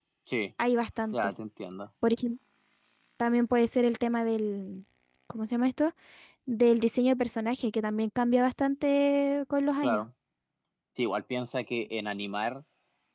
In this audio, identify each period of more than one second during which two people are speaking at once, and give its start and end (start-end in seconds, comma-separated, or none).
none